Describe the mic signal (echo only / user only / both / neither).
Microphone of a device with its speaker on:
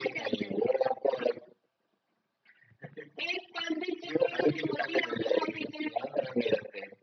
echo only